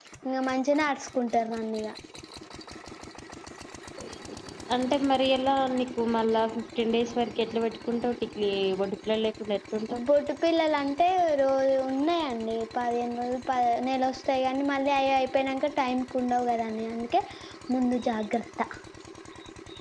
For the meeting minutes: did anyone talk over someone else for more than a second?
No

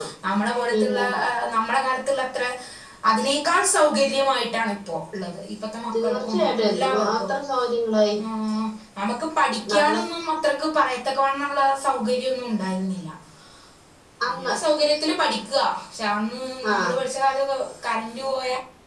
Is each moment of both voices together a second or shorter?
No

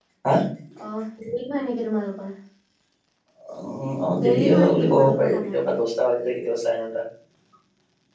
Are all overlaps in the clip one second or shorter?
No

